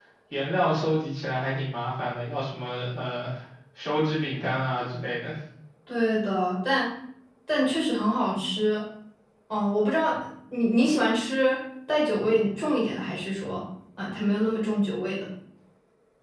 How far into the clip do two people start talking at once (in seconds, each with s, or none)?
none